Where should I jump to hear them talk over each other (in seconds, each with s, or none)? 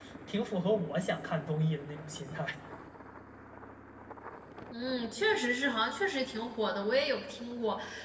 none